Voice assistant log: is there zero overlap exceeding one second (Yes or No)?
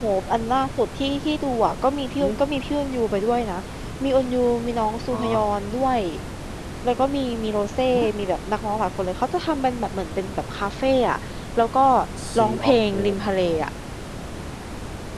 No